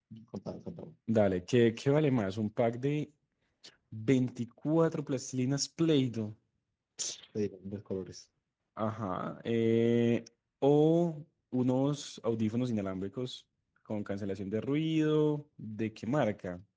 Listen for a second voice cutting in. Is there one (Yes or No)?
No